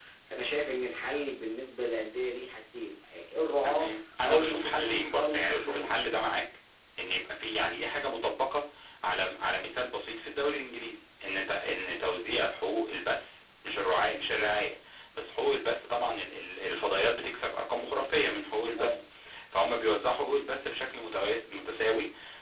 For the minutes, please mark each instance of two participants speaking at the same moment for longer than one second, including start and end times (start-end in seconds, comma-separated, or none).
4.2-5.9